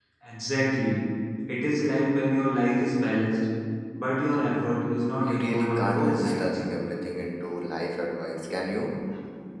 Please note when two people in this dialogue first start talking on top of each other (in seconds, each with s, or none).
5.2 s